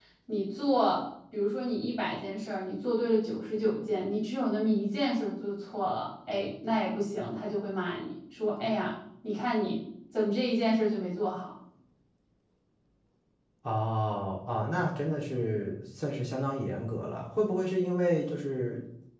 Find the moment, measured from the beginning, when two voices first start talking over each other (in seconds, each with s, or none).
none